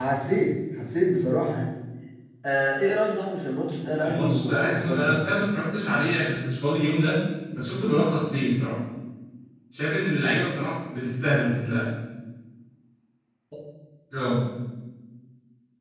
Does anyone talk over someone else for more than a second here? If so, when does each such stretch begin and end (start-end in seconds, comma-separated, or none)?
4.0-5.3